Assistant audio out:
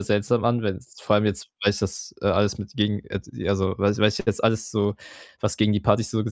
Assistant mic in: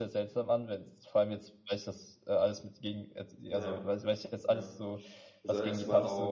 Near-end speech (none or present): present